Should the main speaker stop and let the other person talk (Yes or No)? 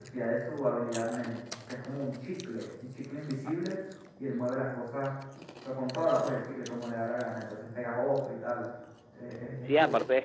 Yes